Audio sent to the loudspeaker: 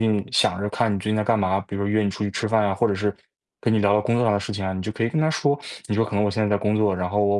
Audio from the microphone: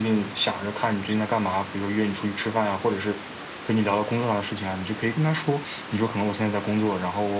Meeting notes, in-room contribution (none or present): none